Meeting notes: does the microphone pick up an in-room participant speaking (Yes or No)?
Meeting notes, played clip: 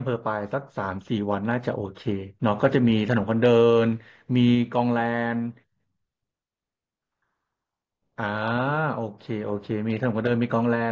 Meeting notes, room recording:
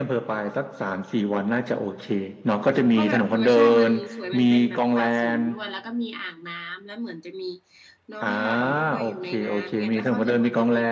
Yes